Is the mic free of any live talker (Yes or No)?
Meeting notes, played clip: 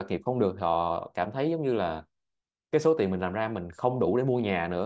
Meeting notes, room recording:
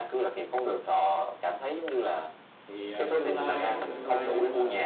No